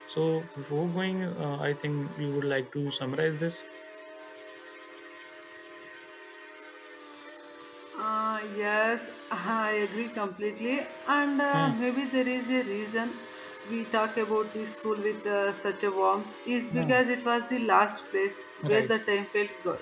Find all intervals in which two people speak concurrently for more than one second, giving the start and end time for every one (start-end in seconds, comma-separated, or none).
none